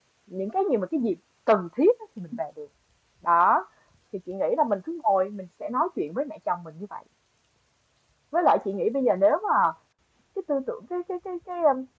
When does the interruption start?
none

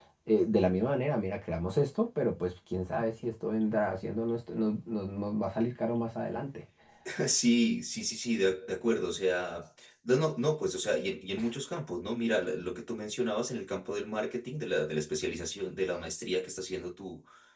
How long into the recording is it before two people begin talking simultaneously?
none

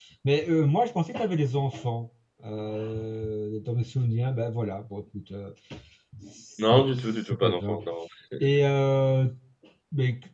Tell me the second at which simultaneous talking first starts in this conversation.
7 s

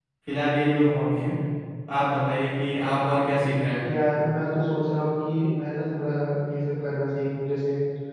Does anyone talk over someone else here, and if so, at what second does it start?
none

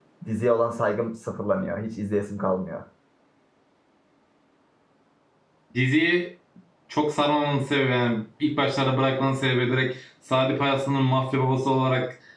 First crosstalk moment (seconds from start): none

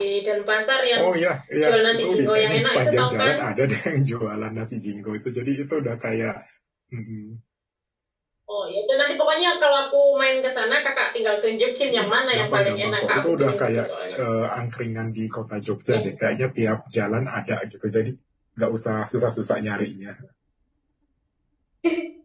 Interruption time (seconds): 2 s

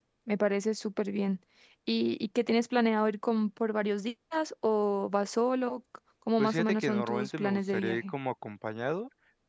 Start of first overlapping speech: 6 s

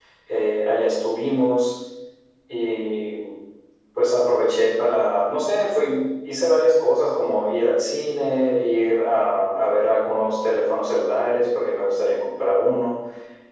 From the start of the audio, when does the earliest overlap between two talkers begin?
none

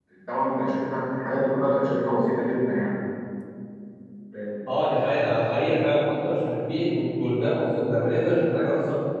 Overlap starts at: none

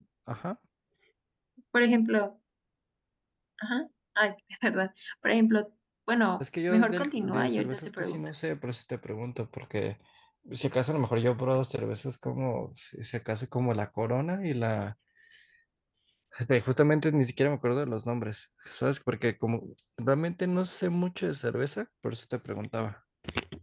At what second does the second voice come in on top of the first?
7 s

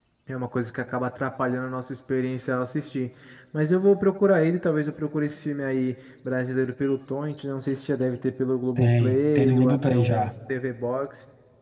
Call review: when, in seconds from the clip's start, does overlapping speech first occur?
9 s

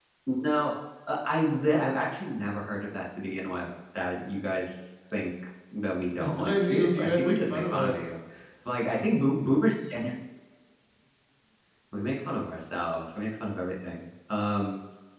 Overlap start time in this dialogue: 6 s

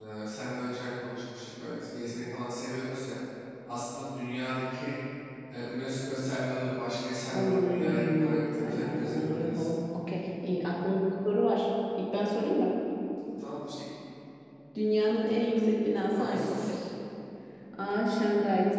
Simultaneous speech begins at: 7 s

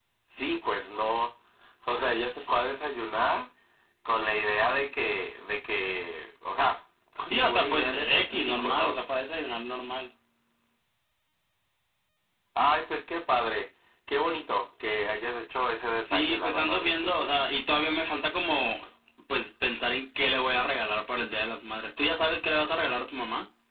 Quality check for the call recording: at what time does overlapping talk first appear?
7 s

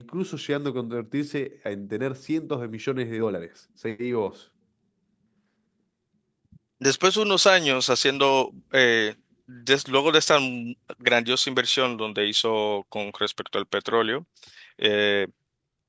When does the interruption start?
none

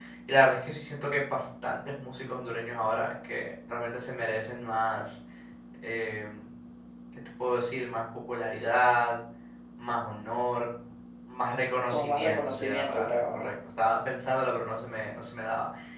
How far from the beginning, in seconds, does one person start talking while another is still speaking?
12 s

